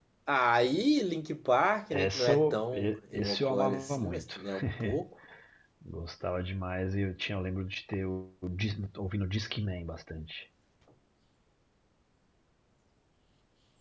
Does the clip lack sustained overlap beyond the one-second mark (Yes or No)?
No